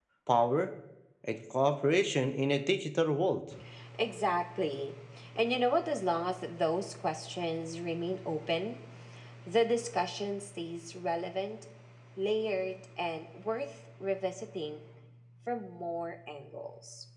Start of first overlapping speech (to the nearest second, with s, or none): none